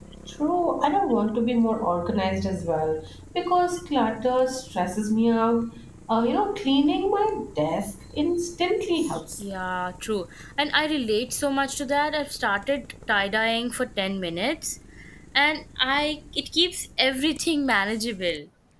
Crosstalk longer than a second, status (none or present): none